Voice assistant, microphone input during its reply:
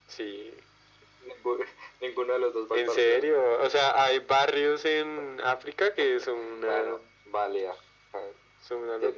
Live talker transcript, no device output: none

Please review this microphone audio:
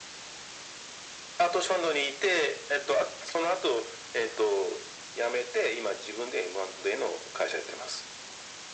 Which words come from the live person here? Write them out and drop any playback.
none

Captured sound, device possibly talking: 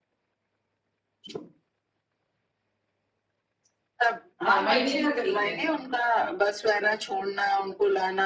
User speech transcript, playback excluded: हाँ महीने का ठीक है

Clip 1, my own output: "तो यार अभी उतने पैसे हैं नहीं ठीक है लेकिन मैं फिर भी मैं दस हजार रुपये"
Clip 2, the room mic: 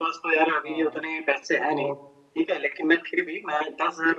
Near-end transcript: हाँ तो

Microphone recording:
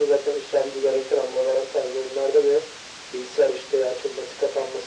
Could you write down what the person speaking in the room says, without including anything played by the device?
none

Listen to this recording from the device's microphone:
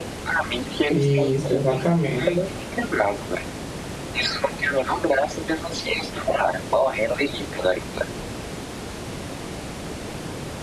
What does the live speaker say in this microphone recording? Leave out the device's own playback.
Isso, exatamente.

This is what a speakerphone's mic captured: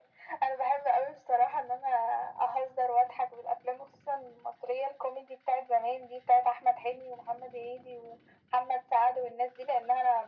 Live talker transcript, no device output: none

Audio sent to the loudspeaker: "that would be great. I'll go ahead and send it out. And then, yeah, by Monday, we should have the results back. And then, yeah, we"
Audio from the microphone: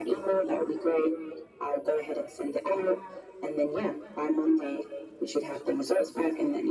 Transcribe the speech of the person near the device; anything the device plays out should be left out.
none

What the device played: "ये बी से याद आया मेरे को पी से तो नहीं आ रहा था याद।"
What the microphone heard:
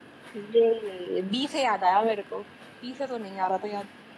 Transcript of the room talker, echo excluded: none

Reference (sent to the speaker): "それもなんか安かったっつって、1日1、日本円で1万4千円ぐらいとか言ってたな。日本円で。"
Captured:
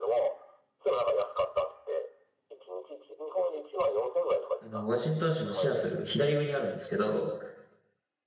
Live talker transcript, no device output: あの、ワシントン州のシアトル、左上にあるんですけど、

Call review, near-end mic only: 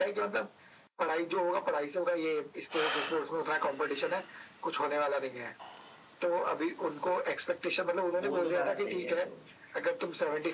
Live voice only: वो तो बात सही है तो

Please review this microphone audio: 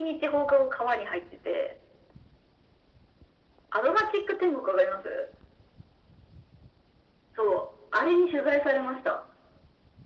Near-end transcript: none

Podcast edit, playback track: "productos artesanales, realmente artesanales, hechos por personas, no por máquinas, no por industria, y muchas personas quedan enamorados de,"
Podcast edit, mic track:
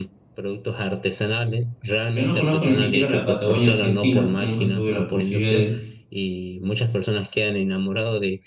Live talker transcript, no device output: Yo no conozco ni siquiera la Patagonia argentina, nunca tuve la posibilidad de,

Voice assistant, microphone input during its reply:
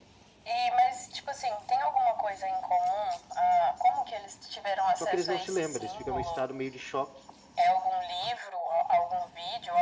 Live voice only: Só que eles não se lembram, eles ficam num estado meio de choque

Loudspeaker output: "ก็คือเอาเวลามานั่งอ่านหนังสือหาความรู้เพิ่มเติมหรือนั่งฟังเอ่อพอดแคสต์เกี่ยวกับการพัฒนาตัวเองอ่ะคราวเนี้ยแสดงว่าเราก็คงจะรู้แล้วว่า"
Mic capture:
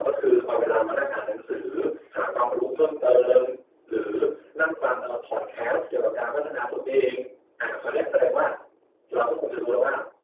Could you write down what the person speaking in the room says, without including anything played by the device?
none

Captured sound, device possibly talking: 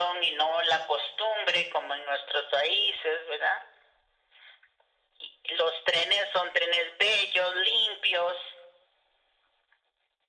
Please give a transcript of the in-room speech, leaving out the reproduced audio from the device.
none

